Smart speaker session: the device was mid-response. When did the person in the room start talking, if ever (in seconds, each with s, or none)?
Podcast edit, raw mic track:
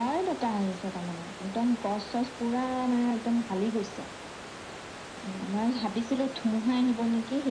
none